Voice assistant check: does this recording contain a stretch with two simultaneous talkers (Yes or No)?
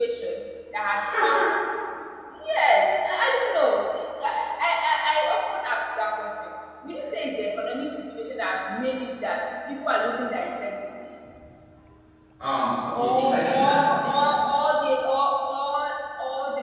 Yes